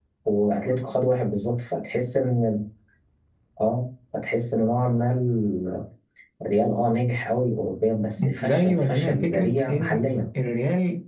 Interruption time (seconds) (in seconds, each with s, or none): 8.2 s